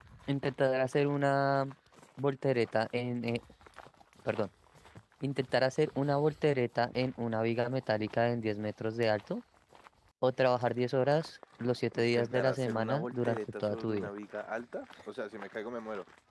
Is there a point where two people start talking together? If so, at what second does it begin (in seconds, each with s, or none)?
12.0 s